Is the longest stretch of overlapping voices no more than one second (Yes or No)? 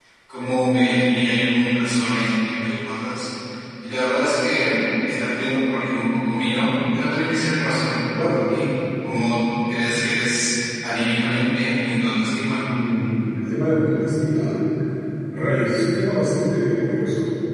Yes